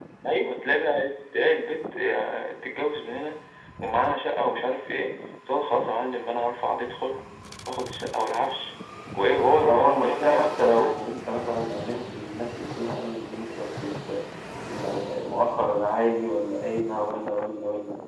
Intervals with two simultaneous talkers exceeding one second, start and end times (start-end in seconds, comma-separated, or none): 9.7-10.9